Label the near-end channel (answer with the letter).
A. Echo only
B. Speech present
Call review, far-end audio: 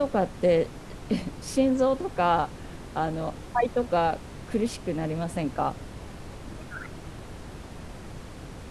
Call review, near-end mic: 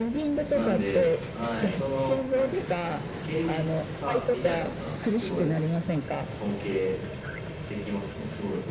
B